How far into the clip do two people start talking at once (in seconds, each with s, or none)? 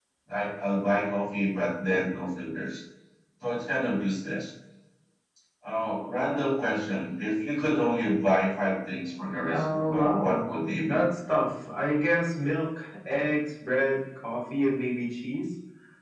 9.5 s